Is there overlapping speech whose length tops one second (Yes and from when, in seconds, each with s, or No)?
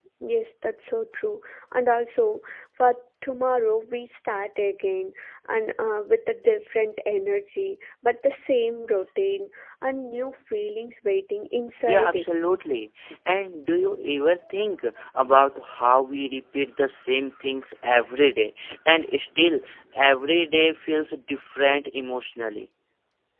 No